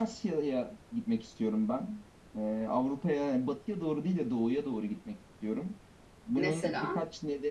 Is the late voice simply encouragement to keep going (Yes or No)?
Yes